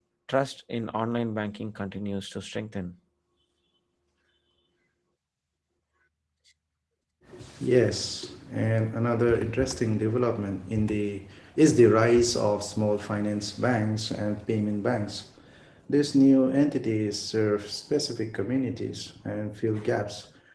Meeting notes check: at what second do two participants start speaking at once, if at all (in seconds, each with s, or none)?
none